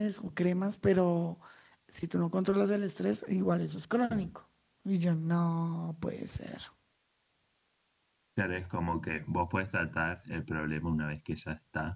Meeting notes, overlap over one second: none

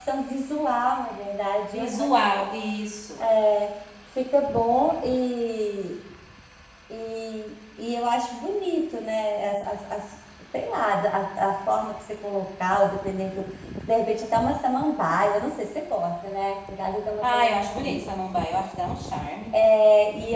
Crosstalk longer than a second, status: none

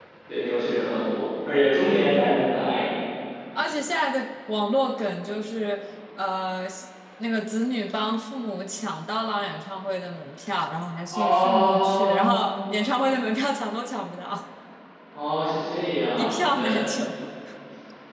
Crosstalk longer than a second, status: present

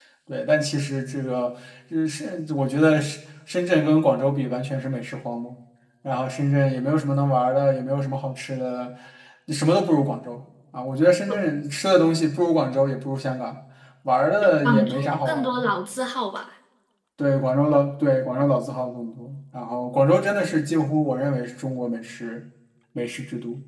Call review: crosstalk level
present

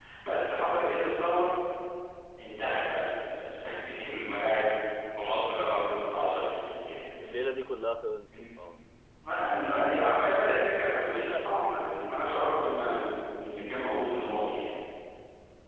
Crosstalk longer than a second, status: present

